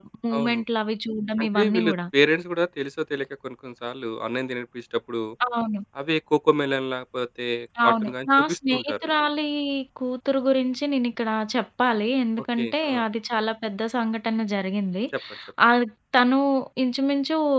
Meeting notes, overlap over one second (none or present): present